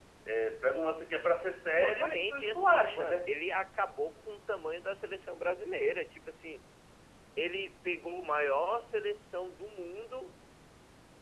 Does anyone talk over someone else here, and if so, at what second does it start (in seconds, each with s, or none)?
1.8 s